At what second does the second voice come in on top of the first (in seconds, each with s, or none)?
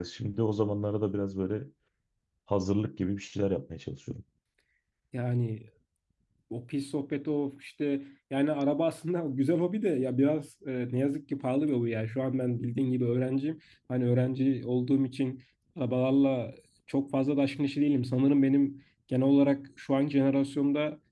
none